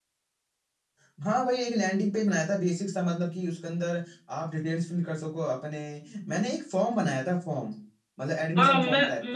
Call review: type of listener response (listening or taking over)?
taking over